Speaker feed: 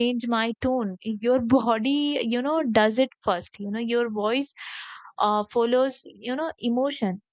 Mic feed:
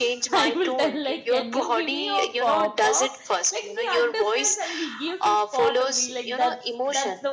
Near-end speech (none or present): present